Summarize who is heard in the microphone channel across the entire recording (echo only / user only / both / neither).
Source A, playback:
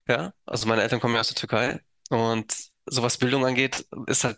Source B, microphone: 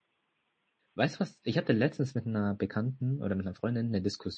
user only